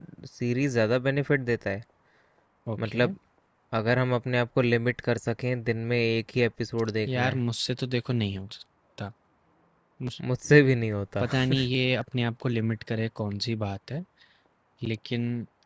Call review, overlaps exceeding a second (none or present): none